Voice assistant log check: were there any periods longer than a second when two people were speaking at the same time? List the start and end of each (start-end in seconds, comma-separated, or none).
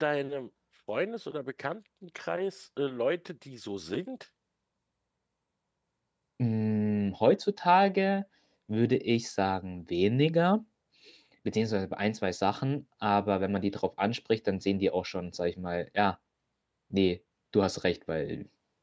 none